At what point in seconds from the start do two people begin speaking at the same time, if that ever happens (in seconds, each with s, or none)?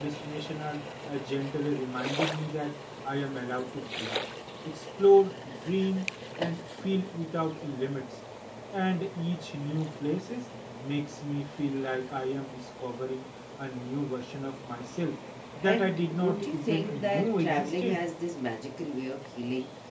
15.6 s